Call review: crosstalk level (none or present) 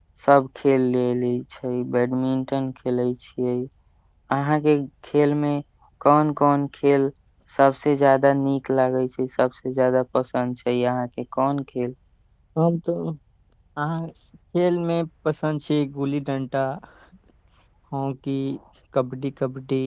none